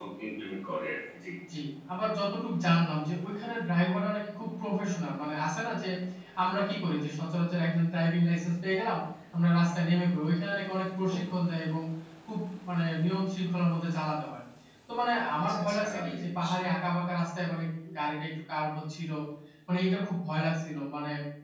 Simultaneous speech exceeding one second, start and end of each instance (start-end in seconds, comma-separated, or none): 15.4-16.6